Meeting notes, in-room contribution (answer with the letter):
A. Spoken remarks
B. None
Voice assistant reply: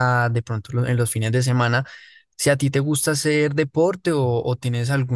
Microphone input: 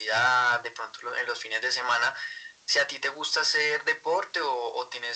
B